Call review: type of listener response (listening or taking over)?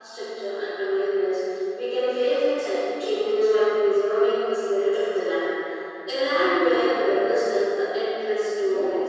taking over